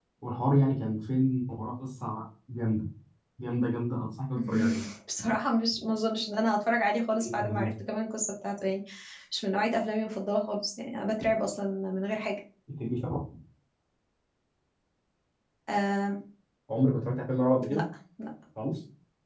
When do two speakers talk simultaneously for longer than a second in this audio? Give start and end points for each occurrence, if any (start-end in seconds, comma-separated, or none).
none